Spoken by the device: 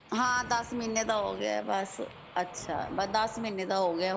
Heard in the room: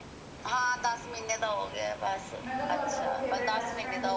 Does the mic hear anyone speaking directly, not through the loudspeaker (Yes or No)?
Yes